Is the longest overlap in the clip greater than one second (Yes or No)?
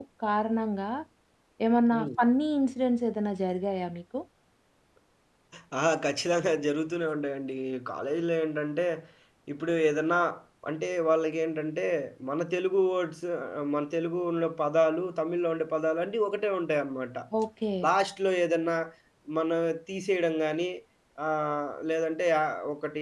No